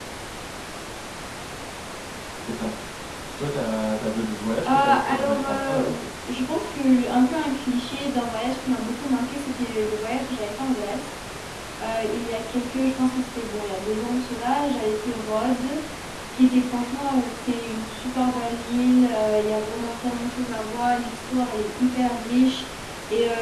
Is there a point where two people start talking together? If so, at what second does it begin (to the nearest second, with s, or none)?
5 s